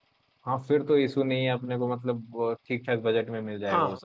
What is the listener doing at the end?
taking over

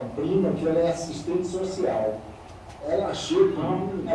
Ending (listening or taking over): listening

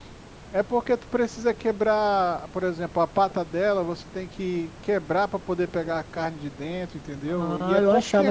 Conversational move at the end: taking over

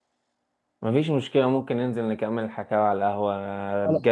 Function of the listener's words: listening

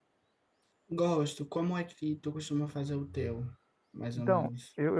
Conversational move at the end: taking over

